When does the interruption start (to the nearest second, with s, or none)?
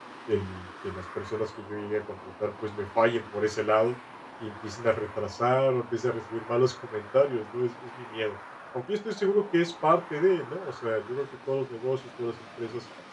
none